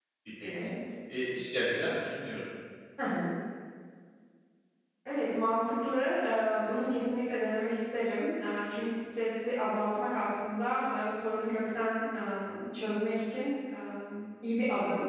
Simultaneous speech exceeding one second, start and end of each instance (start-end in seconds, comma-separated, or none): none